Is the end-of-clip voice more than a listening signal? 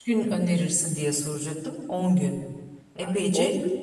Yes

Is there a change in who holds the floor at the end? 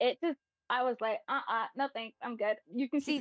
Yes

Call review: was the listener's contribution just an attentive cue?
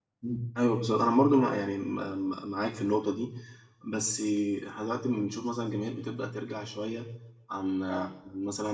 Yes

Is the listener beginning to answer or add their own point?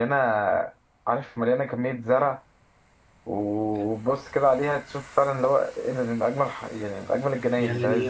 Yes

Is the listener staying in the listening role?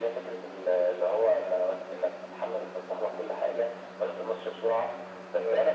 Yes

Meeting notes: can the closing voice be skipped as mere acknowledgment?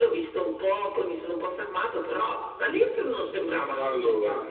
No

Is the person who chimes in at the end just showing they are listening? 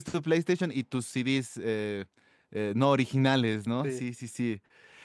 Yes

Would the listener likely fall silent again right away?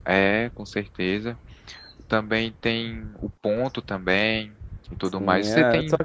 No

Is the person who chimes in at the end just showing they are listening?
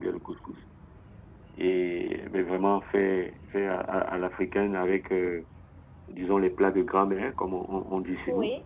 No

